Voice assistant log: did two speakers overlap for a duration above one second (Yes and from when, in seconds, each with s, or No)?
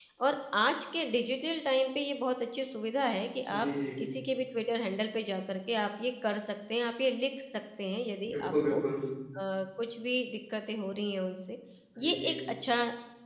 No